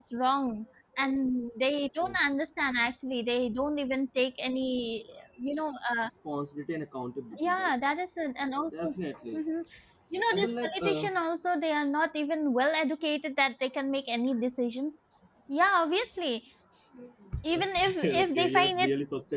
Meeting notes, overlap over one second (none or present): present